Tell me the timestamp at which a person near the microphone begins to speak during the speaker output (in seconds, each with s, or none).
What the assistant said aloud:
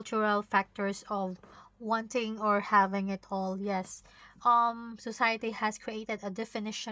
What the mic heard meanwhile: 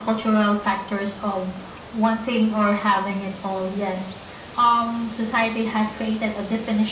none